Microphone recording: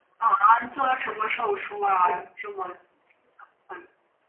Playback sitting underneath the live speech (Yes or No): No